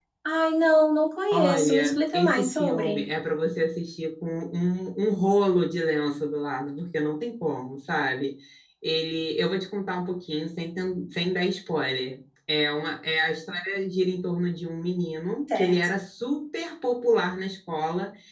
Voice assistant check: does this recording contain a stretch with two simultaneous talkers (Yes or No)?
Yes